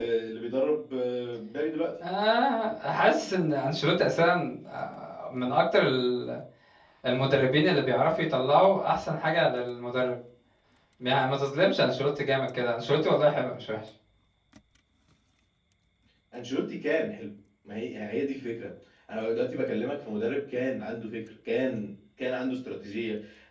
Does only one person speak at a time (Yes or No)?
Yes